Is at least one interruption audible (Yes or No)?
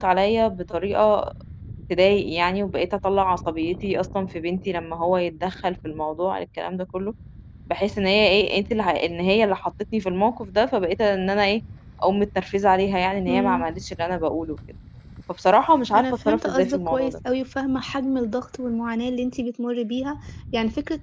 Yes